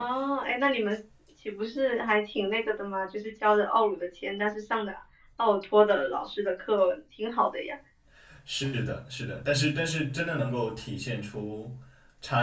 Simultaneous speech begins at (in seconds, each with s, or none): none